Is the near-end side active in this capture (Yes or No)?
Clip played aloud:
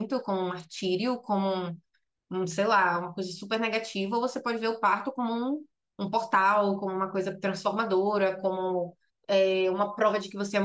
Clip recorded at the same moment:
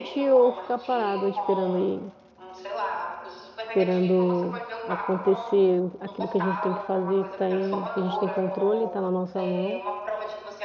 Yes